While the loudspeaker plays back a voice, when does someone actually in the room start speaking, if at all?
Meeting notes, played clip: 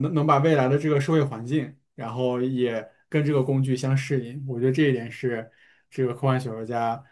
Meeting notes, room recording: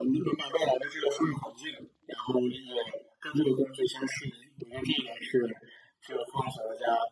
none

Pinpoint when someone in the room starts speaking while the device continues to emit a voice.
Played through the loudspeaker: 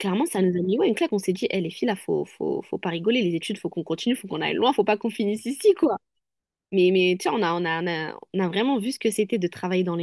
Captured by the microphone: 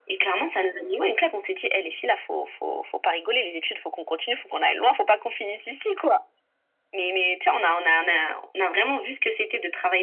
none

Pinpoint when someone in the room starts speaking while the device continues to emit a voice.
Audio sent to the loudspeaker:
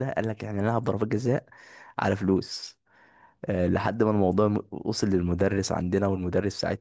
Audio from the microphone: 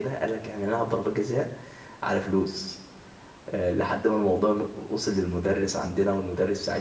none

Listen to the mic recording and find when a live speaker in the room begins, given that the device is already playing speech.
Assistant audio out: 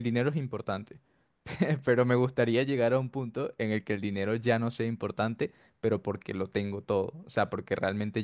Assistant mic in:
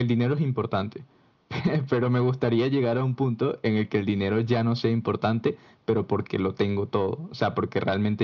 none

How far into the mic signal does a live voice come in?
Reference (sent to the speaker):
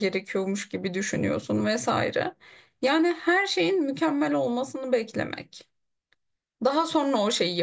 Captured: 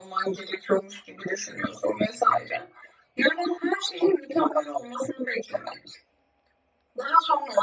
none

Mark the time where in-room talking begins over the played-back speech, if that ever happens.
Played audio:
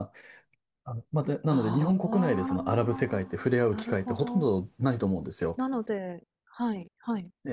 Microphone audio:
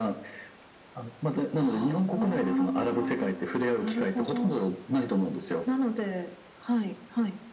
none

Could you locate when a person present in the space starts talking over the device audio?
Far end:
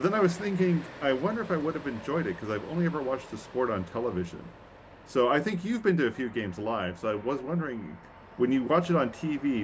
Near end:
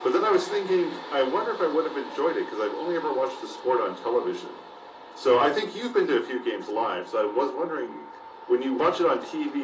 none

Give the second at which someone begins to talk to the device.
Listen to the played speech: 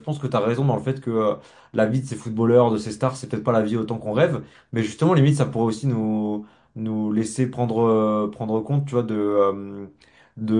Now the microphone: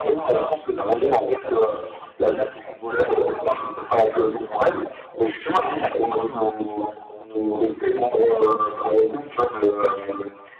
none

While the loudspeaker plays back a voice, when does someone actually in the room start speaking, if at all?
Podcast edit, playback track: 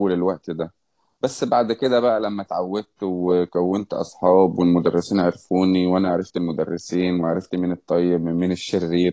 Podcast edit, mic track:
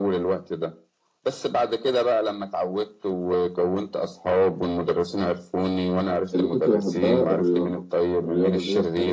6.3 s

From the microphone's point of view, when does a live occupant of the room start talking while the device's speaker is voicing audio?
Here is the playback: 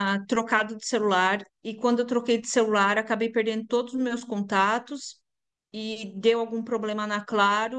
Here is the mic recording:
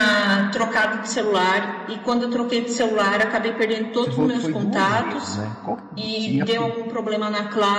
4.0 s

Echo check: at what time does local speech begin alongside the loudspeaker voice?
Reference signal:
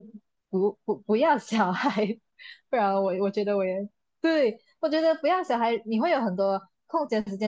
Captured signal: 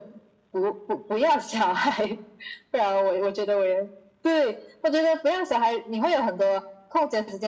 none

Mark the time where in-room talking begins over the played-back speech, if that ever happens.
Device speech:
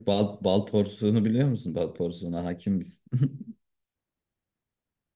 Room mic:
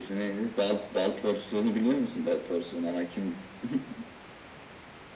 none

